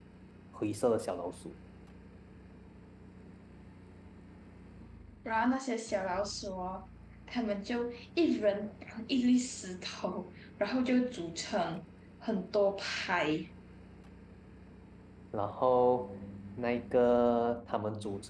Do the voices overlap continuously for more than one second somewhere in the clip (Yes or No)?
No